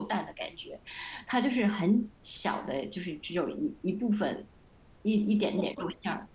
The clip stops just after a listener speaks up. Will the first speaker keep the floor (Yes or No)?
No